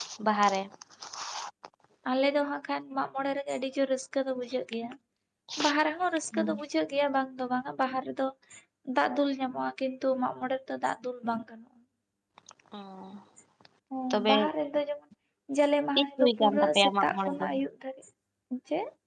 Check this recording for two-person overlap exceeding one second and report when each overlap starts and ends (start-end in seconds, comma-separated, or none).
16.0-17.4